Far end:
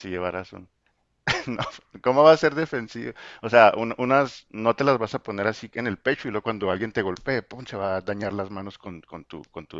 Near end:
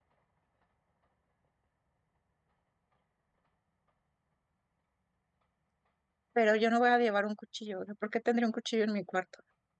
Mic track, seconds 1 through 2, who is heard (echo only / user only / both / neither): neither